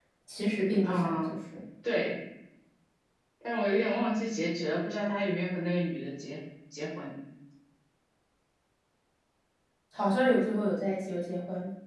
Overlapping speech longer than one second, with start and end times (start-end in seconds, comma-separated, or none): none